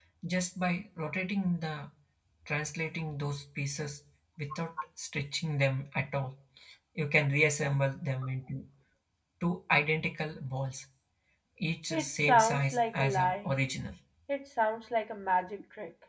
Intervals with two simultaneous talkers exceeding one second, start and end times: 11.9-13.5

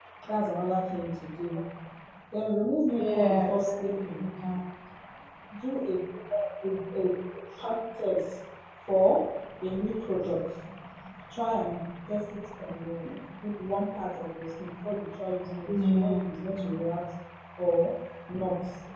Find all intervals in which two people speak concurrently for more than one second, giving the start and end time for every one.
2.9-4.2

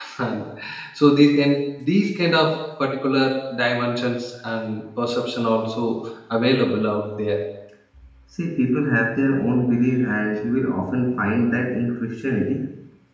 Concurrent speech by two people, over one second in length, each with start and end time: none

